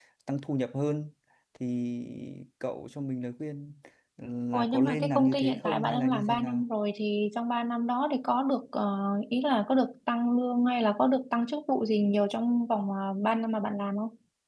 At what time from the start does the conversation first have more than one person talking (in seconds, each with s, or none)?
4.5 s